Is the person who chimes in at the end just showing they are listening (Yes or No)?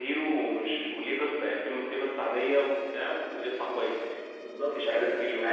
No